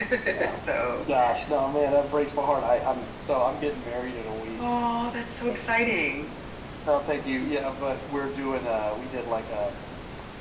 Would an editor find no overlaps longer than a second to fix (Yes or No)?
Yes